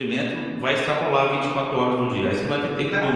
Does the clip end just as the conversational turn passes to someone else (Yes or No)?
Yes